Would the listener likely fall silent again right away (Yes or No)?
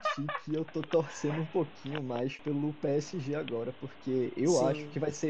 Yes